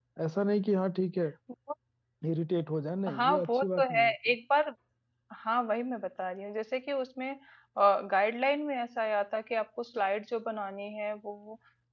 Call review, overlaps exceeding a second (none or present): present